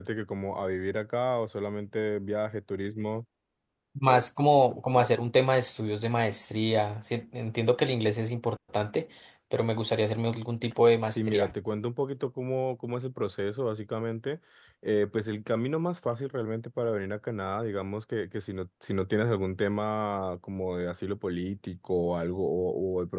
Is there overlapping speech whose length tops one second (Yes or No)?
No